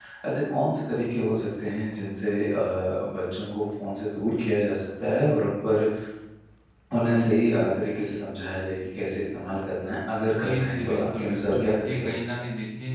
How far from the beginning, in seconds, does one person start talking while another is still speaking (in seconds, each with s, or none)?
10.4 s